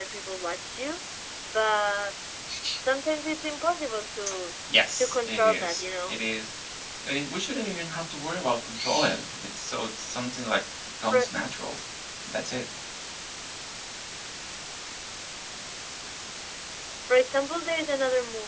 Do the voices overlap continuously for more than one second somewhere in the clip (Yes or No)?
Yes